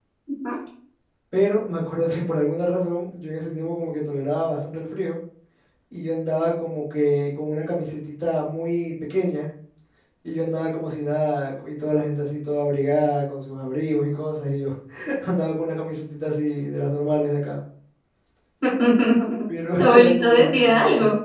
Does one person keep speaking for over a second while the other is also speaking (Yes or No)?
Yes